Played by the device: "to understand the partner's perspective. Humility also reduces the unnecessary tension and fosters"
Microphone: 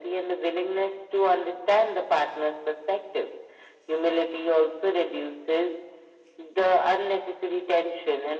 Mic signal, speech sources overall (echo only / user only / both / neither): echo only